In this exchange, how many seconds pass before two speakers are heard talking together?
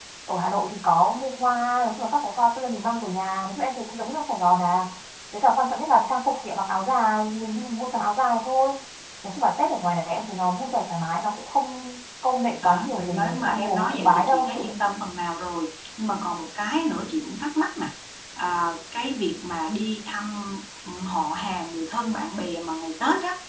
12.6 s

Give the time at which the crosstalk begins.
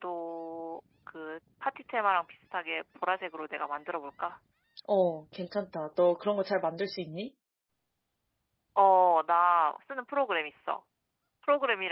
none

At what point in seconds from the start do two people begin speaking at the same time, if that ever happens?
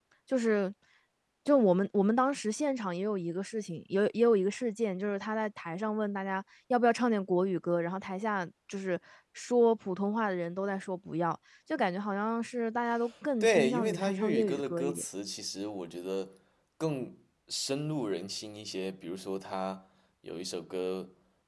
13.4 s

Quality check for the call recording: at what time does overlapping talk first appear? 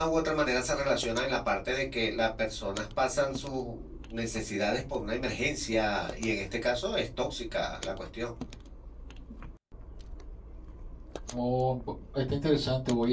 none

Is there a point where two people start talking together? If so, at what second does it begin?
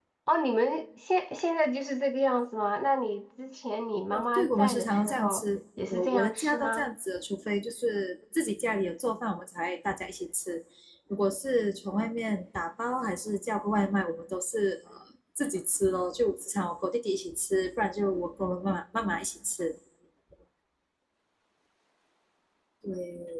4.1 s

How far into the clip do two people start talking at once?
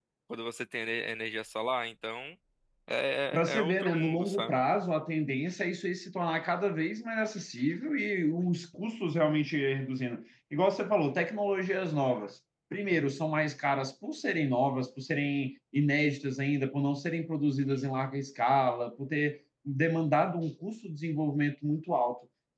3.3 s

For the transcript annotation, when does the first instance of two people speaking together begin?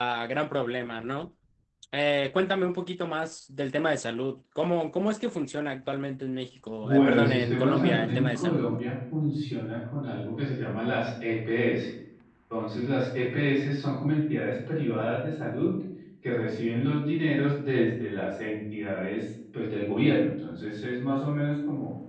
6.8 s

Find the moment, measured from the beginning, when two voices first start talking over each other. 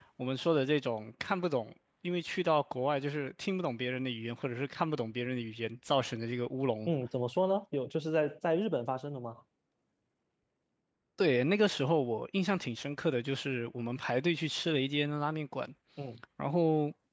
none

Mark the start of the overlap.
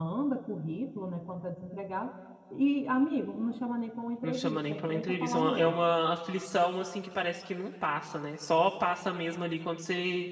4.2 s

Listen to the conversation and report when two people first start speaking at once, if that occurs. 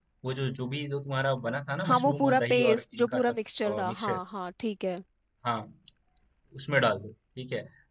1.8 s

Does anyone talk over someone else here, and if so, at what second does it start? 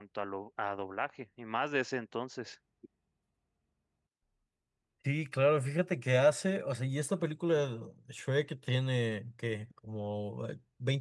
none

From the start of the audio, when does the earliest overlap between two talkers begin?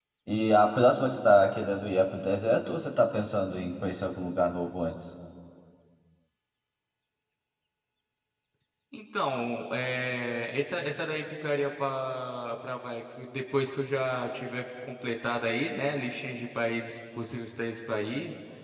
none

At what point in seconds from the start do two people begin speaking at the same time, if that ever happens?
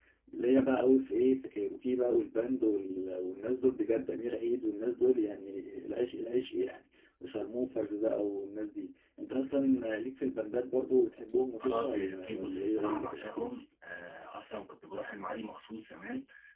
11.6 s

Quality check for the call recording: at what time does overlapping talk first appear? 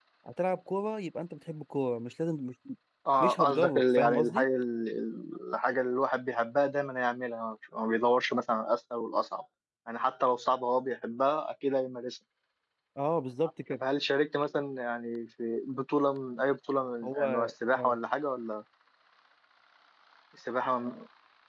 3.2 s

